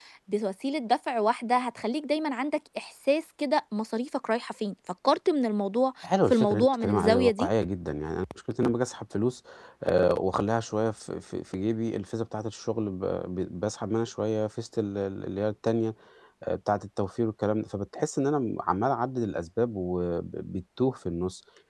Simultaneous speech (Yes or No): Yes